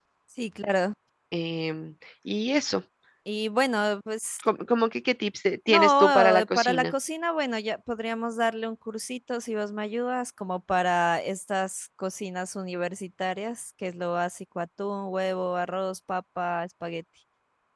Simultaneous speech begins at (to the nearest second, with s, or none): 6 s